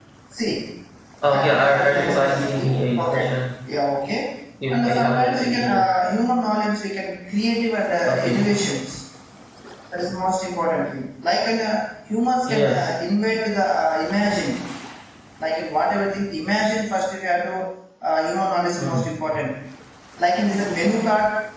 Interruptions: present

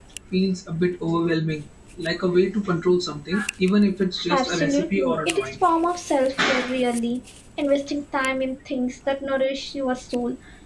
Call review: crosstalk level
present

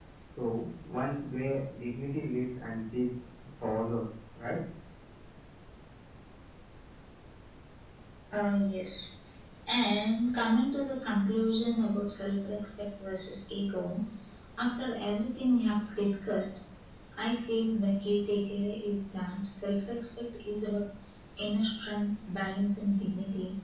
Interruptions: none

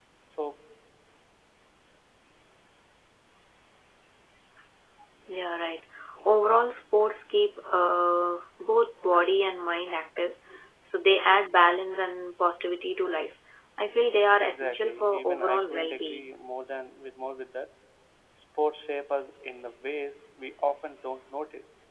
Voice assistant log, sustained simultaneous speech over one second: present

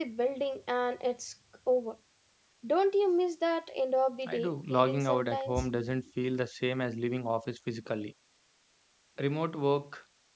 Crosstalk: present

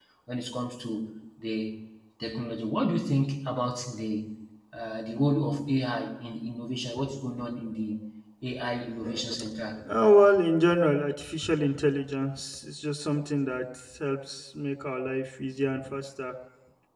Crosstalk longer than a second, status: none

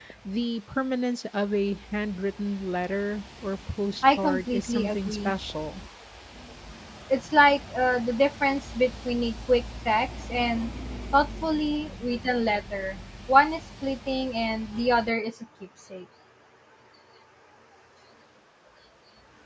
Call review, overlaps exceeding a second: present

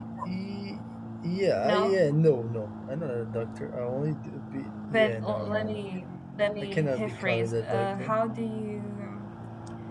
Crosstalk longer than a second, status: present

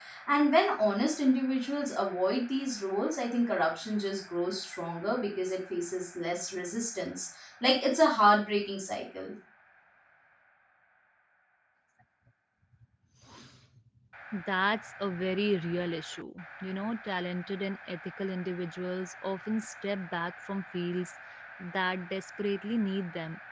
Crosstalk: none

